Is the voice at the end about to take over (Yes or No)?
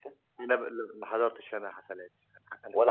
No